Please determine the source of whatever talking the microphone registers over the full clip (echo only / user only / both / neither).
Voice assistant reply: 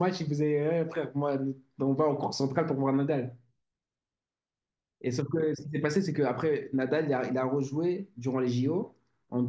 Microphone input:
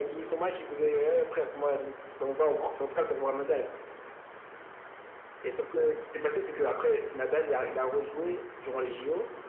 echo only